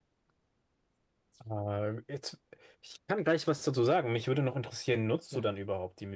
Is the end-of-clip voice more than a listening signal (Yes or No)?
No